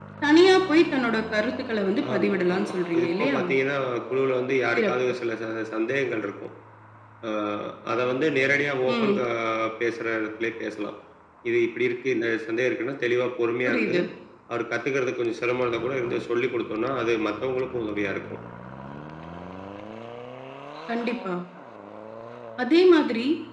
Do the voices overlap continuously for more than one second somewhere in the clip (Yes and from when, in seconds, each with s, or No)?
Yes, from 2.1 s